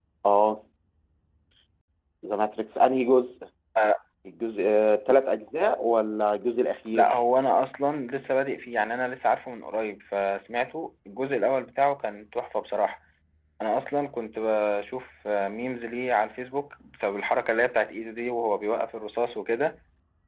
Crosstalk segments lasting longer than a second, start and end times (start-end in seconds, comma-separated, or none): none